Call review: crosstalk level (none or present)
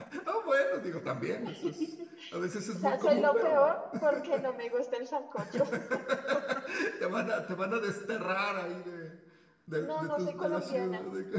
present